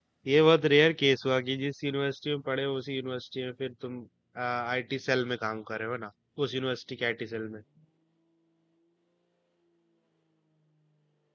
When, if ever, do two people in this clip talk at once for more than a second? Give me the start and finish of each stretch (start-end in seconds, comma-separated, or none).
none